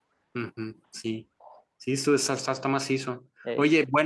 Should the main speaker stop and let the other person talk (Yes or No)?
No